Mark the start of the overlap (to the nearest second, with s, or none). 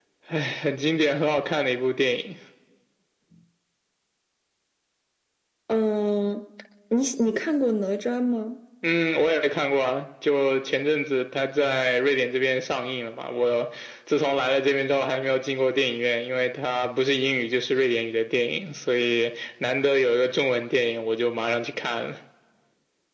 none